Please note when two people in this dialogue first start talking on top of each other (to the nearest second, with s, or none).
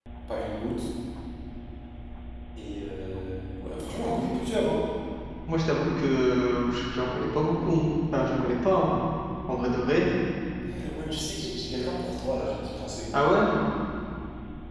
none